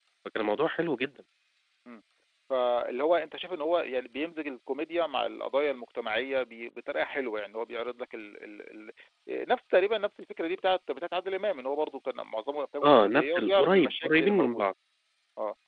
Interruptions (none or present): present